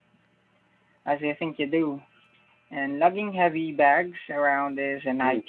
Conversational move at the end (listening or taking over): taking over